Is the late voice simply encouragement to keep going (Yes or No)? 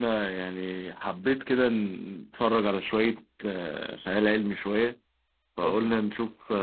Yes